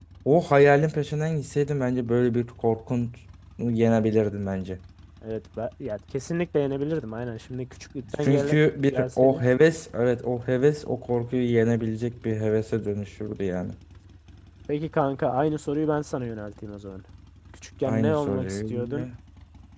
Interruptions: present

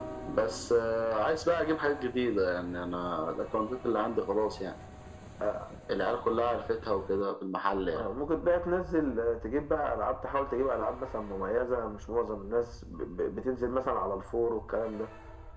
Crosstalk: none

